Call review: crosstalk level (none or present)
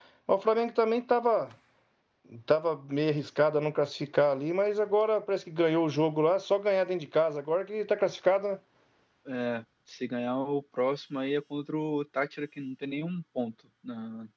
none